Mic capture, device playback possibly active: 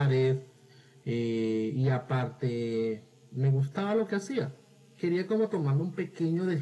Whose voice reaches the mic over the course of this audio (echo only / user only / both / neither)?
echo only